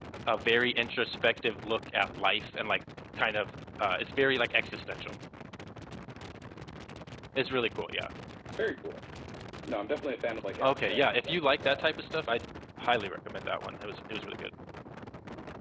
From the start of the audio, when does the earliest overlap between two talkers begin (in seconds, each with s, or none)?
10.6 s